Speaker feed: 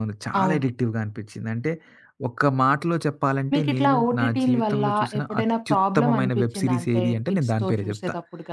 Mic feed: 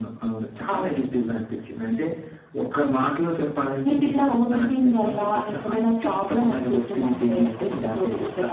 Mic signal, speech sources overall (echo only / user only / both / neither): echo only